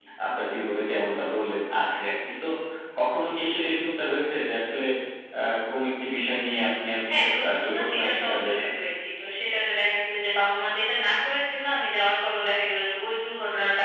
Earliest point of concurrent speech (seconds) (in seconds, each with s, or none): 7.0 s